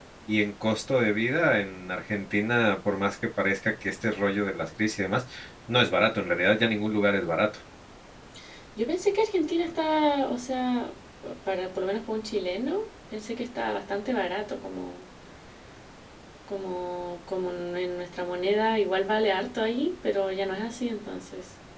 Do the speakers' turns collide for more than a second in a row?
No

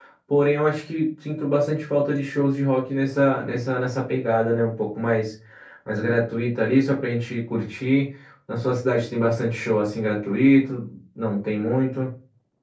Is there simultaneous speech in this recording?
No

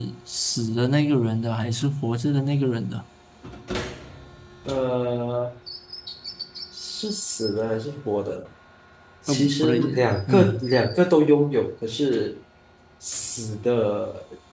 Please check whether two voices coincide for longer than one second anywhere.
Yes, from 9.3 s

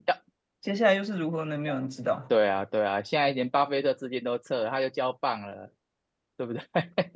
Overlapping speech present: No

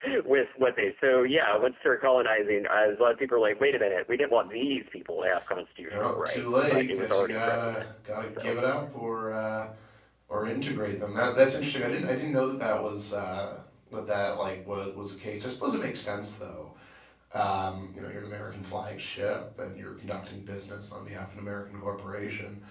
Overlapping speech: Yes, from 5.9 s

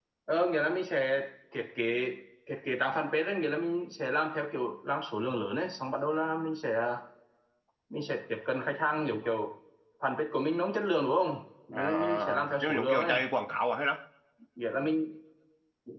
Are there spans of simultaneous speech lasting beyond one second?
Yes, from 11.7 s

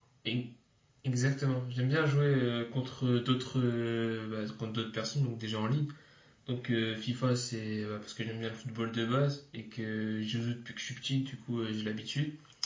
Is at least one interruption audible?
No

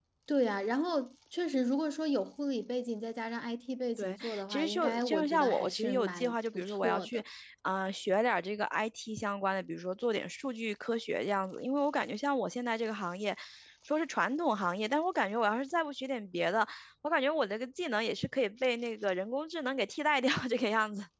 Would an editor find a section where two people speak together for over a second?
Yes, from 4.0 s

